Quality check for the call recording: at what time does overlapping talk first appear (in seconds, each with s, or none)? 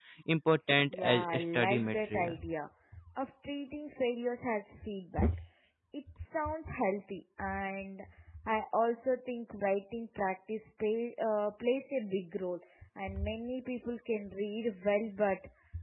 0.9 s